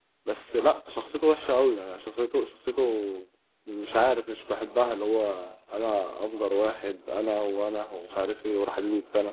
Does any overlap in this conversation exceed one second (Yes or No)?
No